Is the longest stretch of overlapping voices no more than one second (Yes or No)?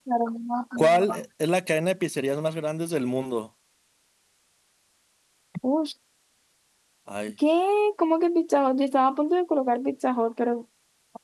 Yes